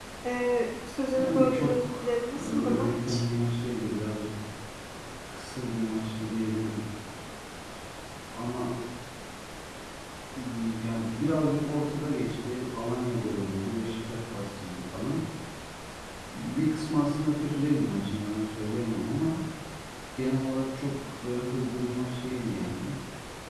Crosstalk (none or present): present